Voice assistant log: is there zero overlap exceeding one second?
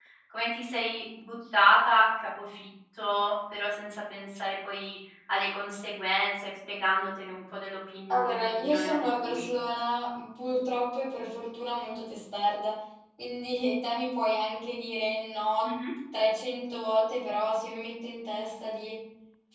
No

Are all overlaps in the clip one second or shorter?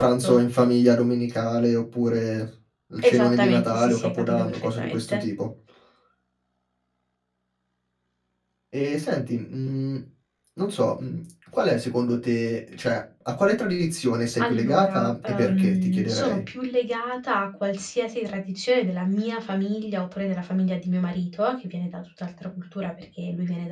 No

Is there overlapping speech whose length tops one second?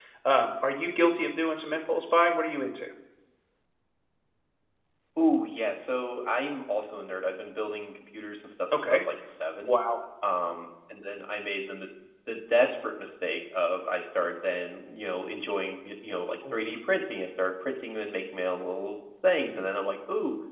No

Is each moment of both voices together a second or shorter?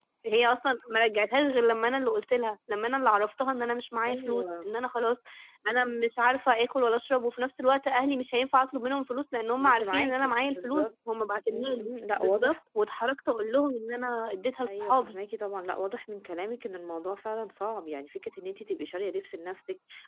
No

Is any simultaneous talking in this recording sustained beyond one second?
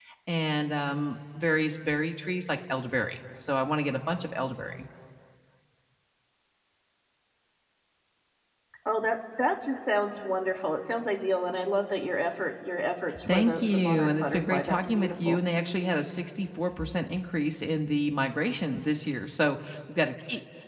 Yes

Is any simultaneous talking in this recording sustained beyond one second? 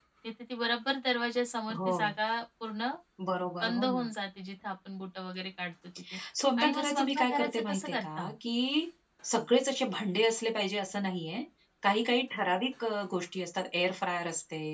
Yes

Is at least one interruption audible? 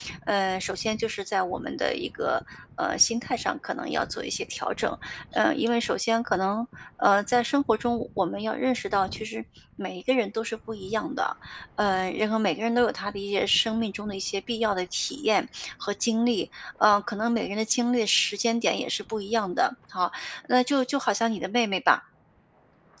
No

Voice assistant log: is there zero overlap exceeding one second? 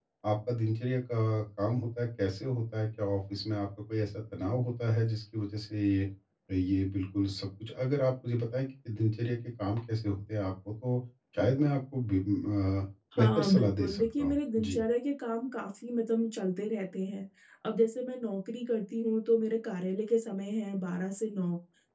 No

